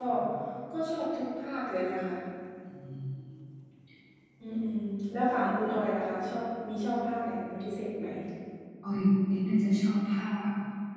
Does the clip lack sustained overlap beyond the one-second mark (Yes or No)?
Yes